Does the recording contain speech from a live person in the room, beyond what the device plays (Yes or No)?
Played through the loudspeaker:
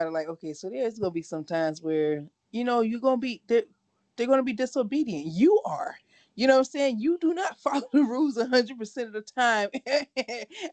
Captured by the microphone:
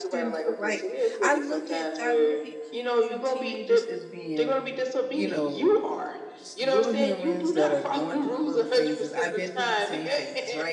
Yes